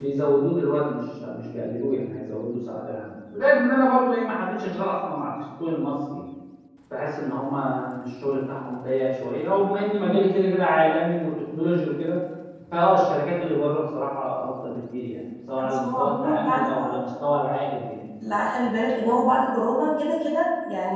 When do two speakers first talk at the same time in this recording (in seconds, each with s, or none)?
15.6 s